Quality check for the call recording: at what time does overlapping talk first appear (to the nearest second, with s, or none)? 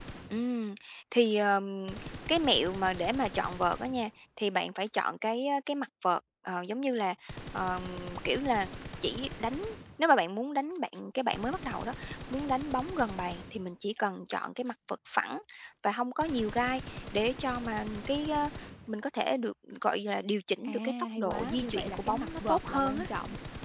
21 s